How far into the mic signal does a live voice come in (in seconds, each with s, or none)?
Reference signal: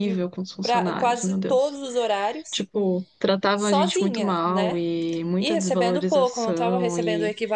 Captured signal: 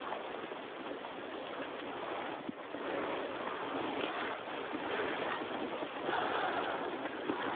none